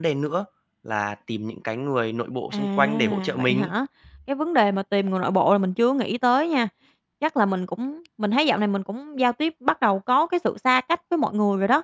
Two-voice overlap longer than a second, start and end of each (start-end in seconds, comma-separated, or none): 2.5-3.7